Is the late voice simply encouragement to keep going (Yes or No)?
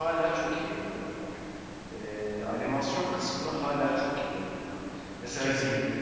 Yes